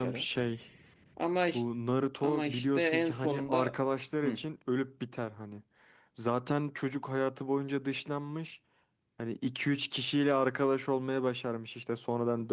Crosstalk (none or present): present